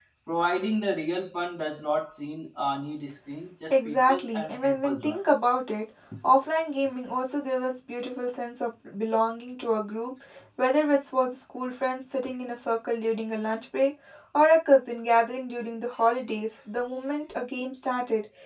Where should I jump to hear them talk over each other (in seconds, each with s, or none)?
3.7 s